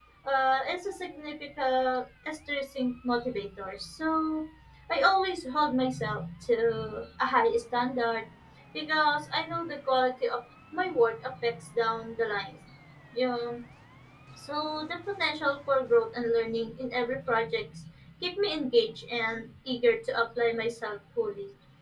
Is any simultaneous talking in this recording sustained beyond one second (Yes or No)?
No